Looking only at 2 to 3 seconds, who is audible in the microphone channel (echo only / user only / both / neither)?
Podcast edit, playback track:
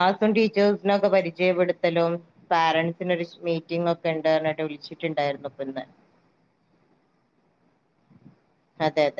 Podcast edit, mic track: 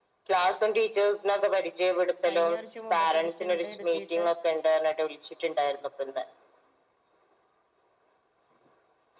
both